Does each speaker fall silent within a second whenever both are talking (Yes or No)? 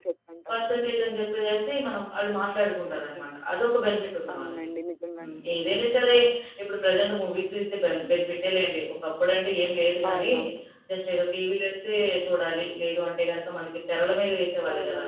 Yes